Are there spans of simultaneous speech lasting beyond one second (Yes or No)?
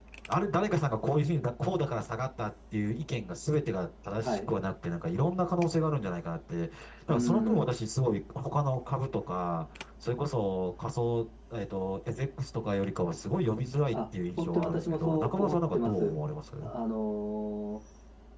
Yes